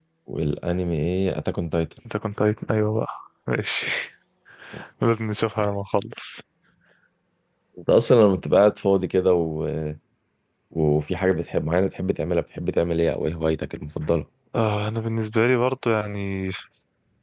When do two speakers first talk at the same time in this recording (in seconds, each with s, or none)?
none